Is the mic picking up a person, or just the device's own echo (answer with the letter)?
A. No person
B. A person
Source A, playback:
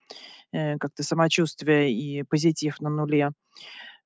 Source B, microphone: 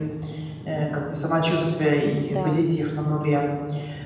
B